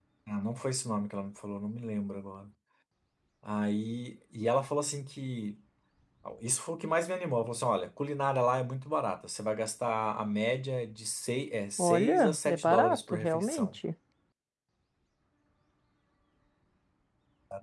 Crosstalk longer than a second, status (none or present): present